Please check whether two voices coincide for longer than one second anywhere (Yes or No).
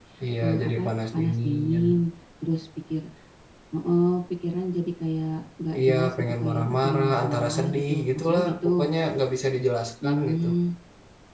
Yes